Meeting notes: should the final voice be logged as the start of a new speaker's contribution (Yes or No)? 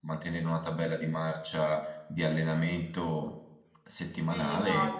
Yes